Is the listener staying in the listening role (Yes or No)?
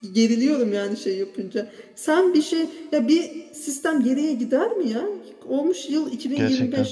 Yes